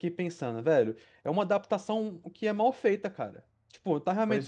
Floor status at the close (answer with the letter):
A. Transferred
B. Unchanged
B